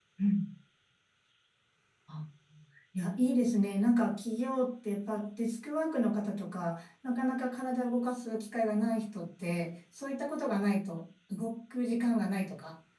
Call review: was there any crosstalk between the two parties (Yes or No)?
No